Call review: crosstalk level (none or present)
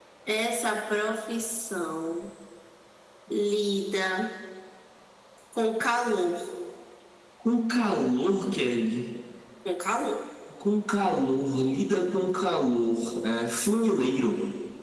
none